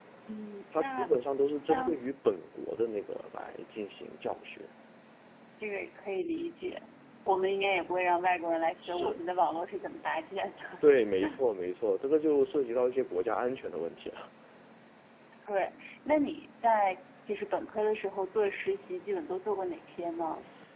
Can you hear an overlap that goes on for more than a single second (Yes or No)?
No